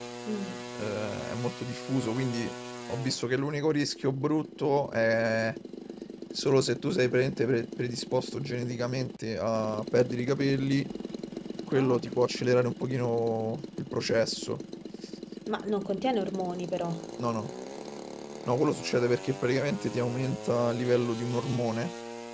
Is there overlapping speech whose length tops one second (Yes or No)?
No